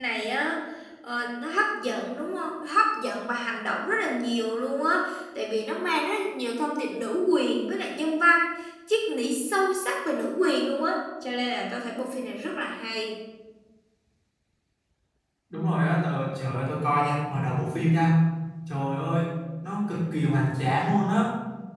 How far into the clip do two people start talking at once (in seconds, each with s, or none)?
none